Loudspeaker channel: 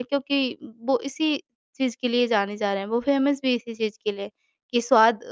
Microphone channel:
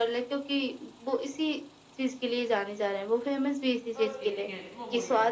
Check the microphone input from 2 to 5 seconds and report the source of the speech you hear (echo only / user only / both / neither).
both